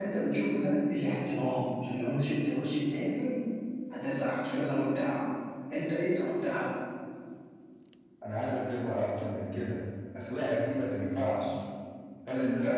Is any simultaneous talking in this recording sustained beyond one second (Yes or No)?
No